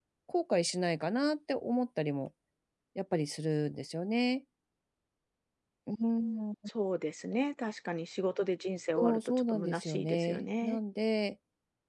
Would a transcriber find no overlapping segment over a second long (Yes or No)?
No